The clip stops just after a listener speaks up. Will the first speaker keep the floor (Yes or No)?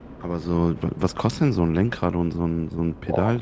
No